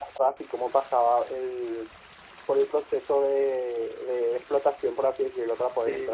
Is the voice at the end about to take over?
Yes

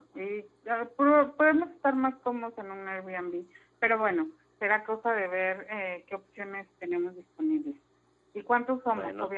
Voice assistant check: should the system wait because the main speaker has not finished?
Yes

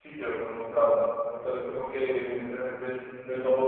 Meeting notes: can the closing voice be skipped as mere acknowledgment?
Yes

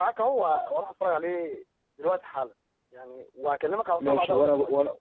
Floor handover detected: Yes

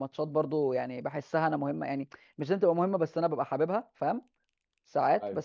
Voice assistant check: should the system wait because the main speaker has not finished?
Yes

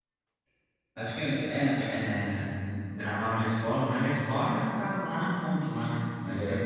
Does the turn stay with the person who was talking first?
No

